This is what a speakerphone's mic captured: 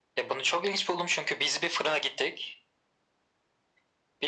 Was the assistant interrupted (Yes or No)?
No